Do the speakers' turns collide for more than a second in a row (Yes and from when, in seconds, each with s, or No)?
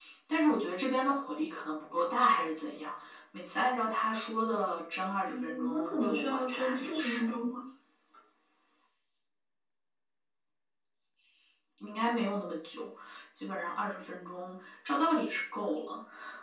Yes, from 5.2 s